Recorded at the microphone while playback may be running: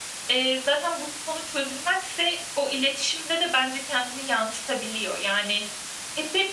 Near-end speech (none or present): none